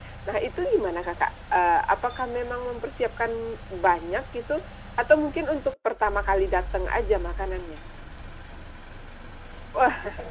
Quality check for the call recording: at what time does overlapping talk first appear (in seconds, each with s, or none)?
none